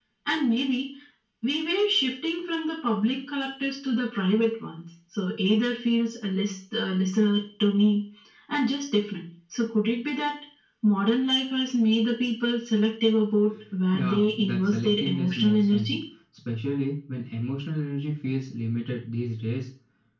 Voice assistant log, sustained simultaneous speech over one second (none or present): present